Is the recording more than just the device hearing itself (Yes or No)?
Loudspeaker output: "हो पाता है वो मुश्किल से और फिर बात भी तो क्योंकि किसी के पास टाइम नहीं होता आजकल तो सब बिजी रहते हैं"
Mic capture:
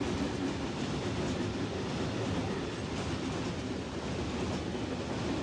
No